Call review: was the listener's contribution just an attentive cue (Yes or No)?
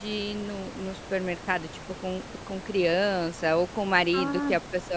Yes